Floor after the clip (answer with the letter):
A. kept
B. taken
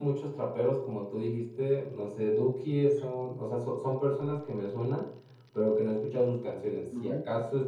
A